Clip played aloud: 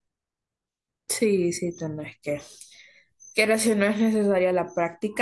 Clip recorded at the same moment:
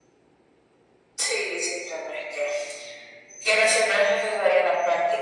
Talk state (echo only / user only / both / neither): echo only